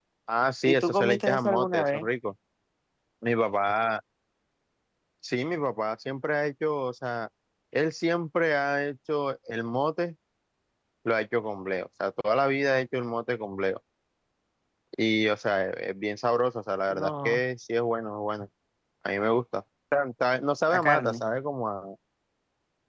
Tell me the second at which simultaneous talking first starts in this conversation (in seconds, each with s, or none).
0.6 s